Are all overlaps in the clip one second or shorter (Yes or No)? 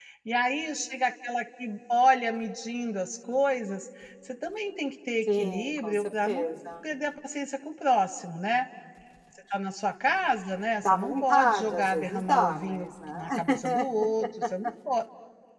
No